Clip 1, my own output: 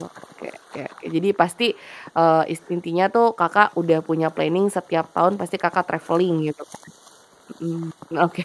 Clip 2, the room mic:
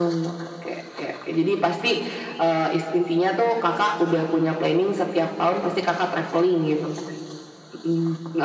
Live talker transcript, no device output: none

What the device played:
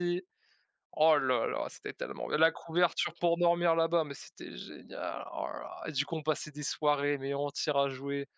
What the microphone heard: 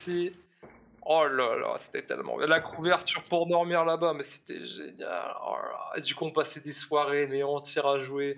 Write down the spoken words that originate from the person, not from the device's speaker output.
none

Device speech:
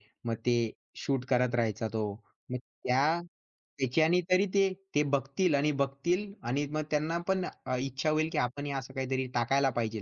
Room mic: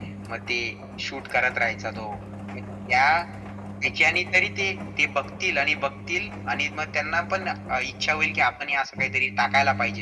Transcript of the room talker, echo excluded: none

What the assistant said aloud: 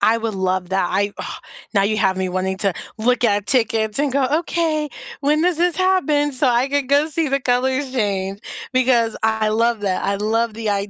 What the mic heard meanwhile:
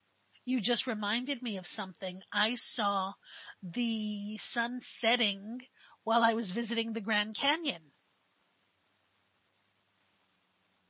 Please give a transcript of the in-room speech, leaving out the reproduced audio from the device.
You just reminded me of something; I saw the sun setting while I was visiting the Grand Canyon.

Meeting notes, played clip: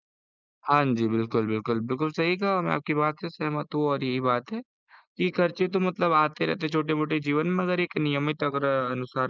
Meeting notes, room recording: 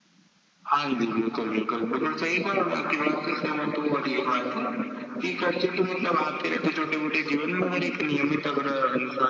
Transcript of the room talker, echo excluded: हाँ जी।

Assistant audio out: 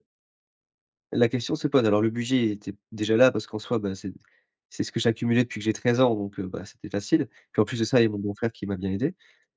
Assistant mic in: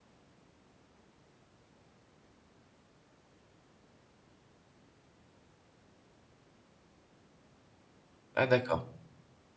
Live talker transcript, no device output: Ah d'accord.

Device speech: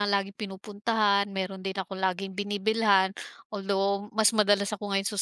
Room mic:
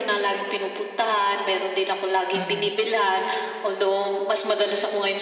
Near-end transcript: Mm.

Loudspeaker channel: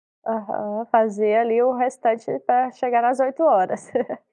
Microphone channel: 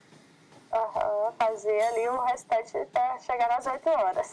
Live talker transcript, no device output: none

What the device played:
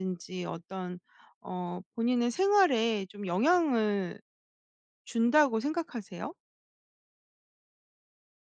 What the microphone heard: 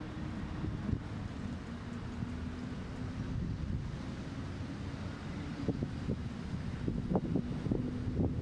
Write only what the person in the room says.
none

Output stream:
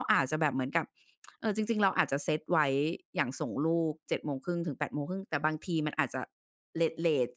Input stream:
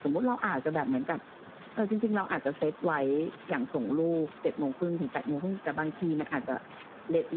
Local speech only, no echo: none

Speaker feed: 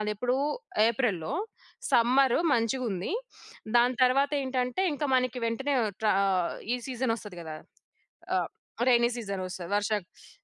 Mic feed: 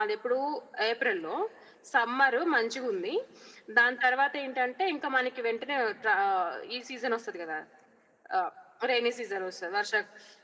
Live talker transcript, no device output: none

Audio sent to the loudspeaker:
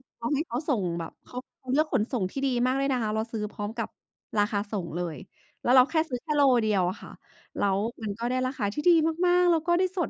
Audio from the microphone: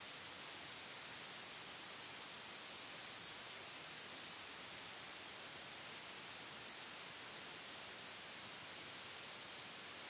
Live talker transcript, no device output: none

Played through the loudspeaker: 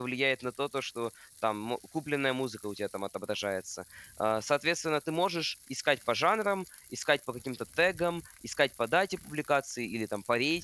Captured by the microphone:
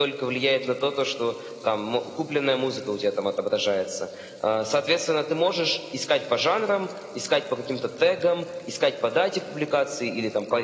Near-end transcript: none

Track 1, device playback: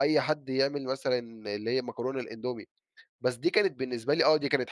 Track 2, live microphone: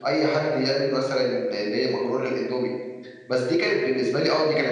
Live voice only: none

